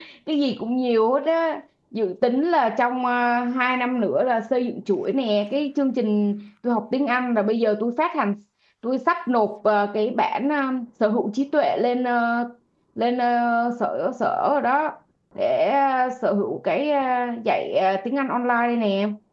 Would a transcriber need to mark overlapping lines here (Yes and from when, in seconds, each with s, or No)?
No